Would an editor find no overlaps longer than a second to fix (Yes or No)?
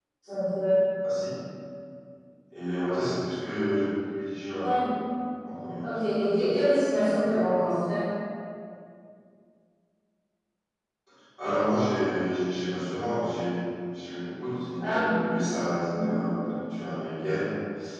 Yes